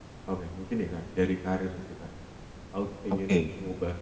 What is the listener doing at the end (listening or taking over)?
listening